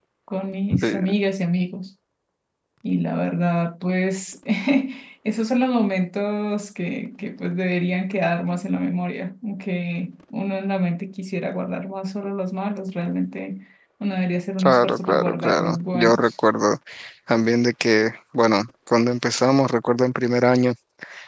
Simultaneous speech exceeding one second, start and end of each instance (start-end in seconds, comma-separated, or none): 14.6-16.3